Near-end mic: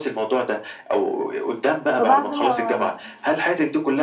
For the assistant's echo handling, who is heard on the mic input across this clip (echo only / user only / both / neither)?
both